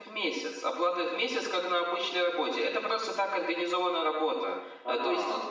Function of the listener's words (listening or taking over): listening